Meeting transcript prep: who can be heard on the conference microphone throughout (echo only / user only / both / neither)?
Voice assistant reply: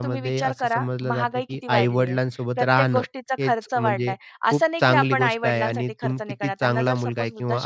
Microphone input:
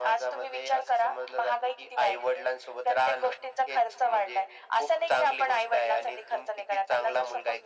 echo only